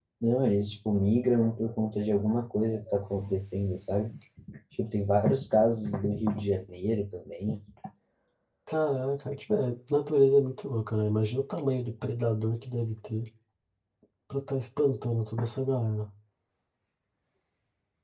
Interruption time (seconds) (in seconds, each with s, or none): none